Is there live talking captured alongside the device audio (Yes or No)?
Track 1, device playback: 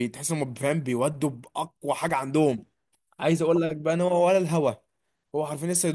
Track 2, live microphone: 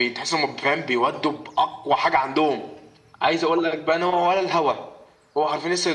No